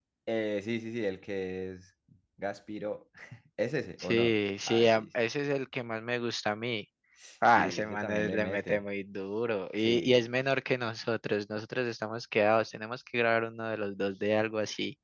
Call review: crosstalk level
present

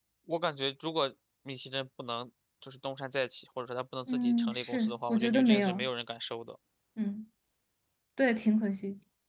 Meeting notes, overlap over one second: present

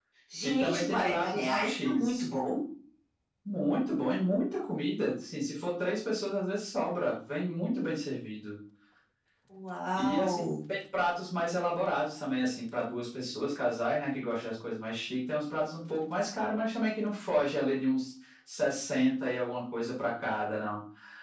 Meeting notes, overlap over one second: present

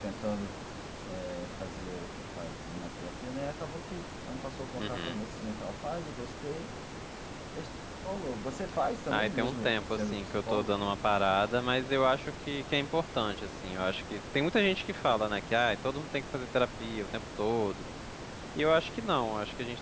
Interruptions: present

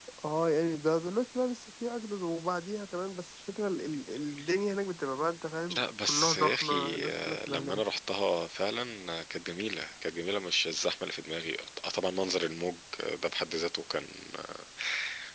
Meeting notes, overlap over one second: present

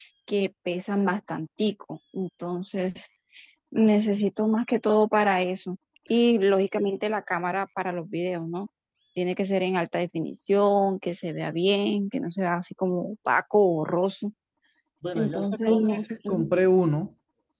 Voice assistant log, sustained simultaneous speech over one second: present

